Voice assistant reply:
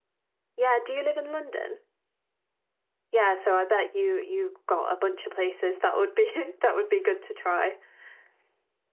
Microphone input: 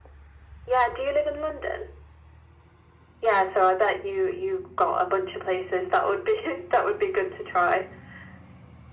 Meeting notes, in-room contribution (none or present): none